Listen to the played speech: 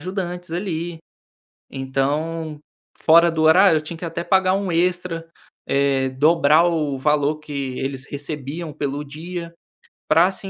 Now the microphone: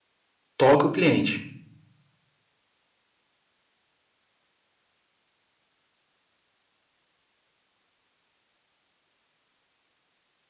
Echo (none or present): none